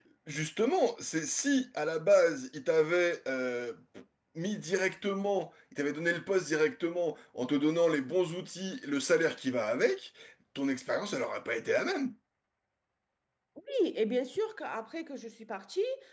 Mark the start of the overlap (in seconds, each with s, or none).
none